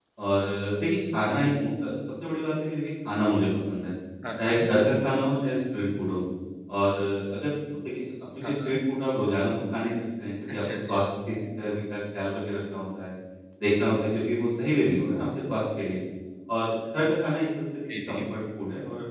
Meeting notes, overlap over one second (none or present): none